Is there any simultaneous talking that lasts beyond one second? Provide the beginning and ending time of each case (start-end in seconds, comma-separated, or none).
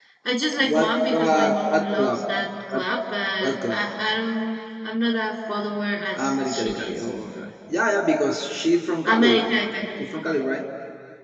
0.6-2.2, 6.1-7.4